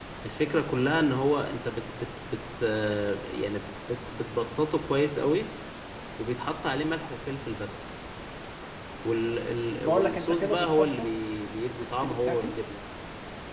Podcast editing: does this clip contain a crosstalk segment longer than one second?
Yes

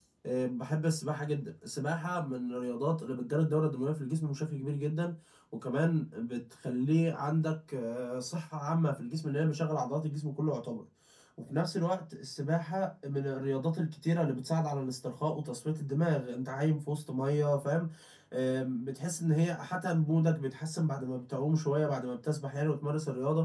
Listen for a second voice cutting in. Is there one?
No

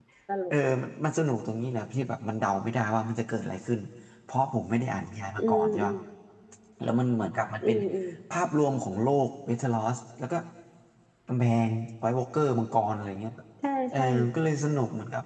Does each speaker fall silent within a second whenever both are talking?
Yes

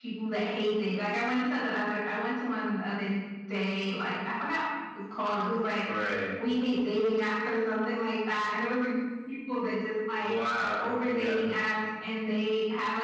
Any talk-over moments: Yes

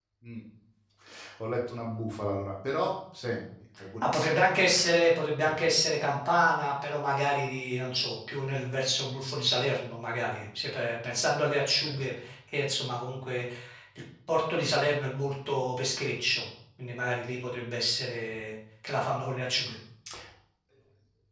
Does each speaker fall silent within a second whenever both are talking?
Yes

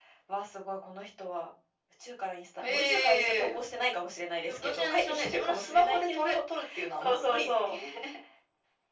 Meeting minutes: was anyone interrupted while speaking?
Yes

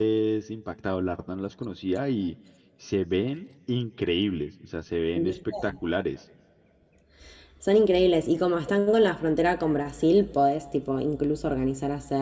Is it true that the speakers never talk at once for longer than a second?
Yes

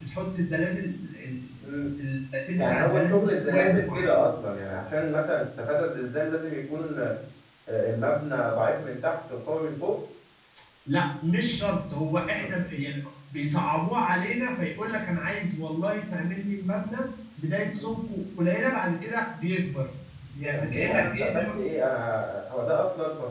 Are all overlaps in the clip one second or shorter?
No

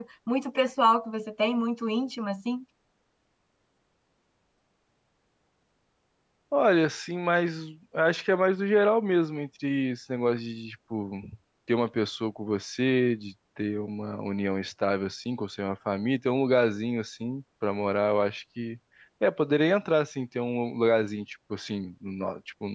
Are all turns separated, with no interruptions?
Yes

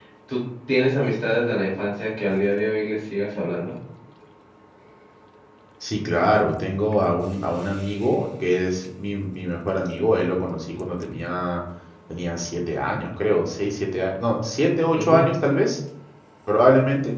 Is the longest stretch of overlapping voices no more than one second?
Yes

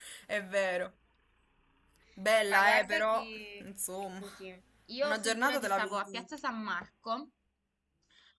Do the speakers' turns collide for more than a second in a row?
Yes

